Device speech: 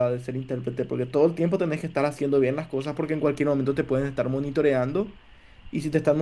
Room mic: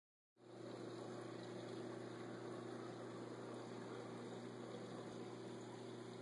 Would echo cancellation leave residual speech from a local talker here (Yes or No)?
No